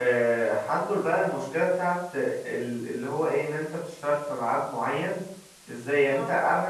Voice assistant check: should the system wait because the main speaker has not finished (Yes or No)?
Yes